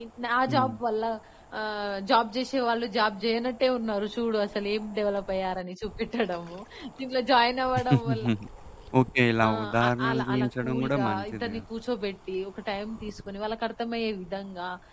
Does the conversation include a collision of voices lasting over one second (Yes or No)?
Yes